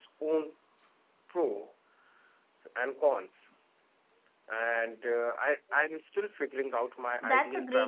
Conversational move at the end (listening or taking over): taking over